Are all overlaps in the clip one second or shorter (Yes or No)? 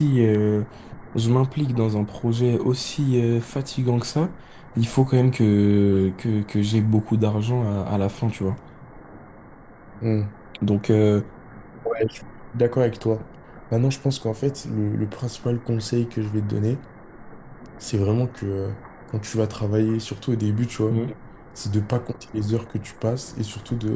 Yes